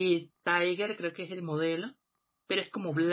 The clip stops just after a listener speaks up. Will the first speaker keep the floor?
Yes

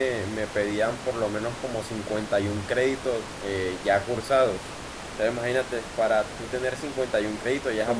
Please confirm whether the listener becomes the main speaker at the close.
Yes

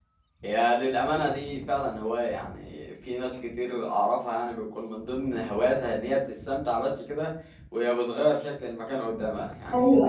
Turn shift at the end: No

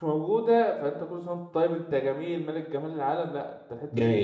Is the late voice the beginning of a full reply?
Yes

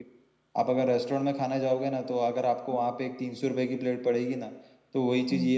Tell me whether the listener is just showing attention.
Yes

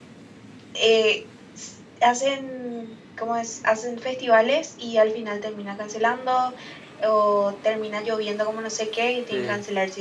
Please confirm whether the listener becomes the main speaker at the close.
No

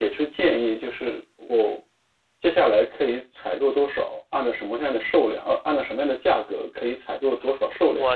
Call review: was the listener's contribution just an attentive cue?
No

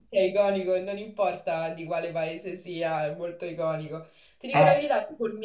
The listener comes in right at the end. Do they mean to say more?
No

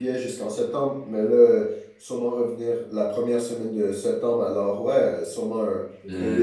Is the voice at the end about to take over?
Yes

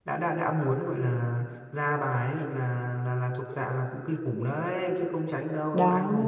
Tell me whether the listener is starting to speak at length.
No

